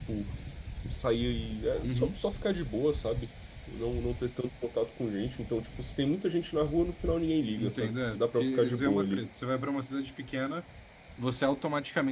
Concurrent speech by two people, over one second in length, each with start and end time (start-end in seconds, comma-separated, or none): 7.6-9.2